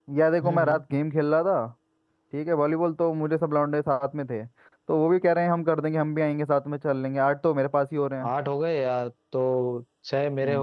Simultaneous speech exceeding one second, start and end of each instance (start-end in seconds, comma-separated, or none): none